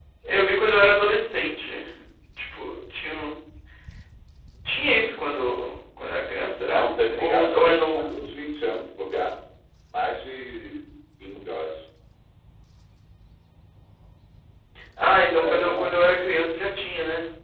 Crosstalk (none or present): present